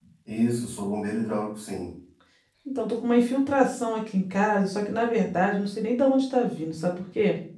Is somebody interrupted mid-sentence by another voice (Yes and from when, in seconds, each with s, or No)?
No